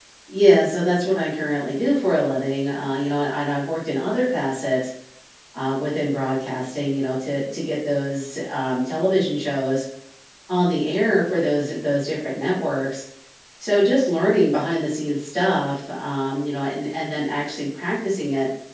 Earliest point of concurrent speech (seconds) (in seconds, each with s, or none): none